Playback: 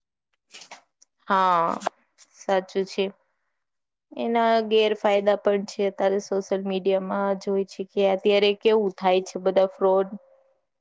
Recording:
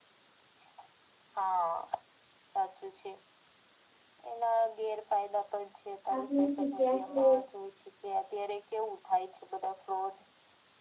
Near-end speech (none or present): present